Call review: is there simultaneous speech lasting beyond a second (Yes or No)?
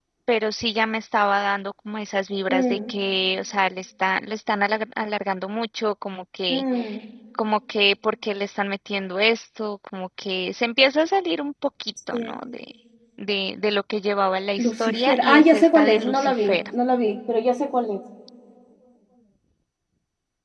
Yes